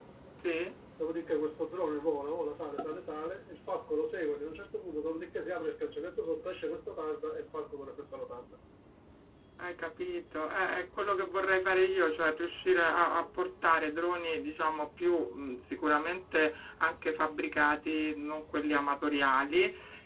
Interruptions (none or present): none